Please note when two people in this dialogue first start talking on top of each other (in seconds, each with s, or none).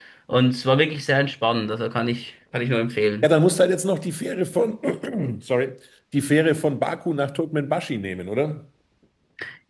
none